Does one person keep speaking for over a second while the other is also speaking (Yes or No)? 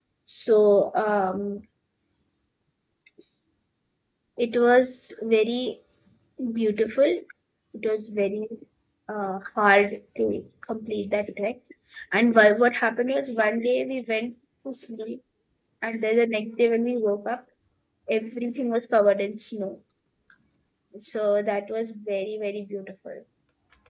No